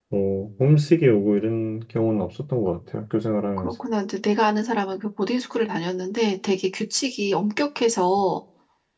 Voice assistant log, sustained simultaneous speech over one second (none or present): none